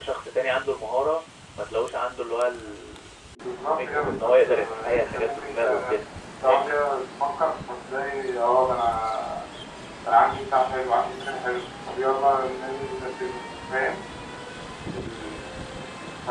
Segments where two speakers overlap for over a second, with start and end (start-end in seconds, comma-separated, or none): 3.8-6.0